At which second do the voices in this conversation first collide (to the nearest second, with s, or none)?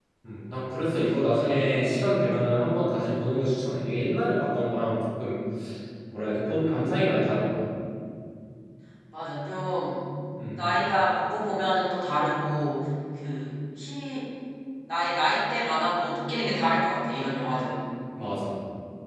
none